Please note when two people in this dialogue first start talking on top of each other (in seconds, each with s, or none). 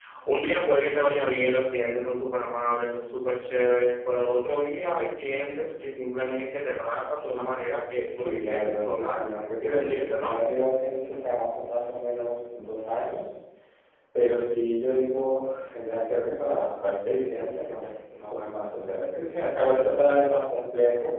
8.0 s